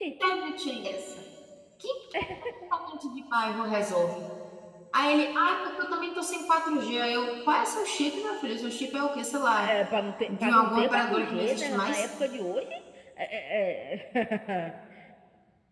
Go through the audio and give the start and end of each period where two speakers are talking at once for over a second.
10.3-12.1

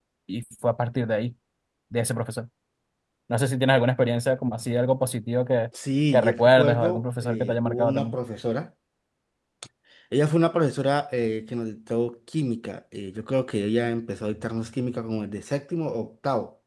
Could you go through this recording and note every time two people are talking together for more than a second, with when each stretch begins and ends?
6.1-8.1

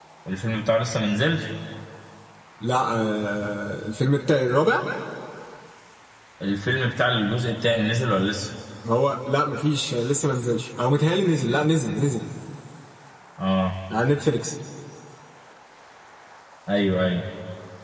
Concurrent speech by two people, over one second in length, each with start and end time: none

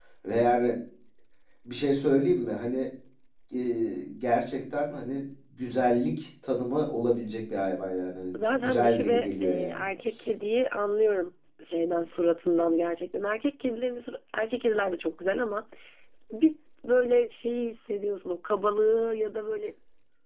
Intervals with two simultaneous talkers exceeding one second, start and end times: 8.3-9.8

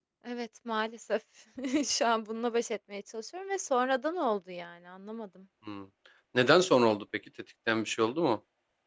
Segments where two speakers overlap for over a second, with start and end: none

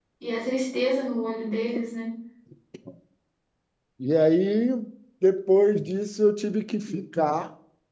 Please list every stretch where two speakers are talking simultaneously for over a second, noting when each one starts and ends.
none

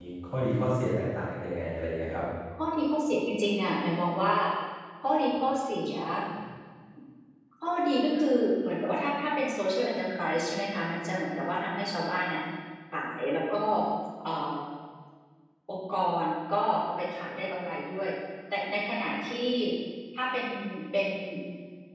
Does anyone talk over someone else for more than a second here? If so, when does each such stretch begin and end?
none

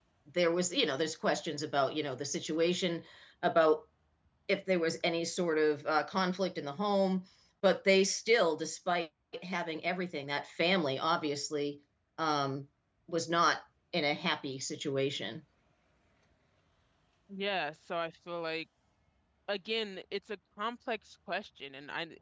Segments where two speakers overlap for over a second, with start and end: none

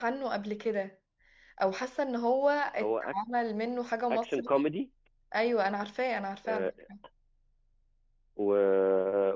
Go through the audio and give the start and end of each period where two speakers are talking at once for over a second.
none

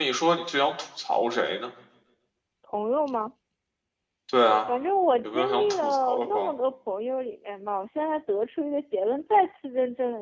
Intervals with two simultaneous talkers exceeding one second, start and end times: 5.2-6.5

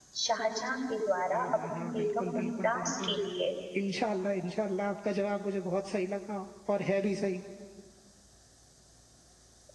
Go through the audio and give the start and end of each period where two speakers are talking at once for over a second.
1.3-3.2

